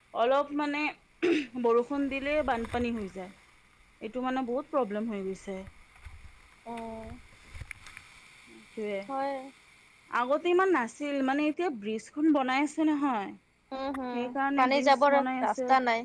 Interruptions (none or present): present